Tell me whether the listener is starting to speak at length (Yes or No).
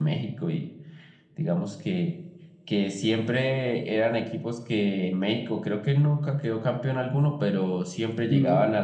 No